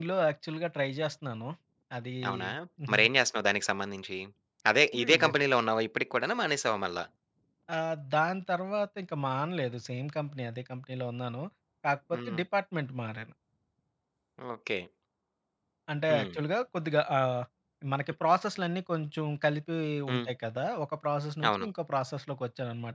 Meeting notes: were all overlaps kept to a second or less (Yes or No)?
Yes